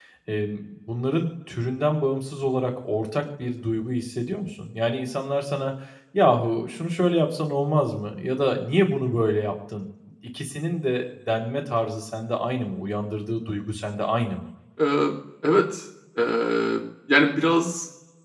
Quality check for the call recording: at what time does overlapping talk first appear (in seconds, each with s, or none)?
none